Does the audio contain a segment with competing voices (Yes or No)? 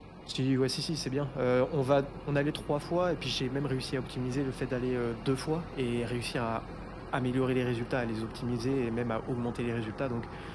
No